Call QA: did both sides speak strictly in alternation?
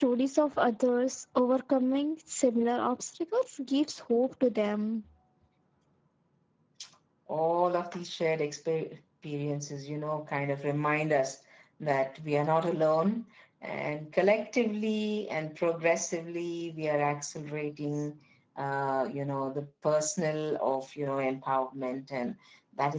Yes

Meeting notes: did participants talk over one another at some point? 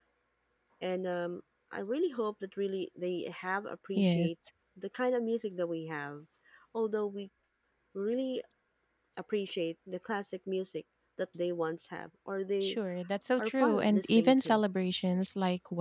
Yes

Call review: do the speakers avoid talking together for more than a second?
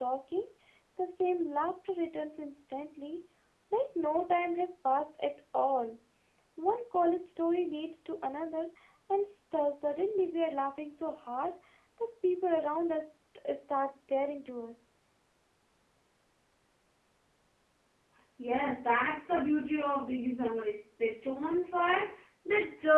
Yes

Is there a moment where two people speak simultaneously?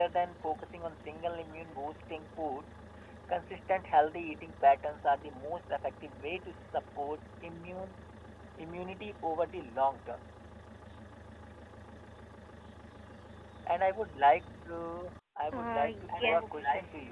Yes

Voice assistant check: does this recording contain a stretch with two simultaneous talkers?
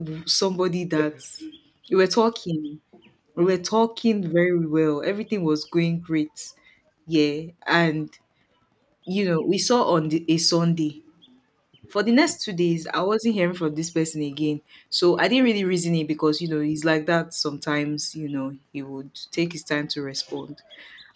No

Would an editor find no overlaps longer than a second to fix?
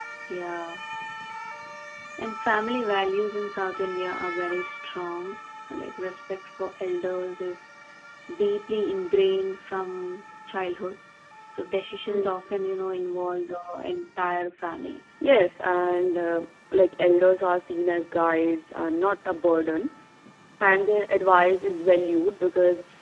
Yes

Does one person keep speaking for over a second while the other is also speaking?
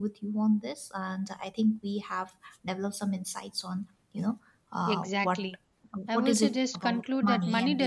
Yes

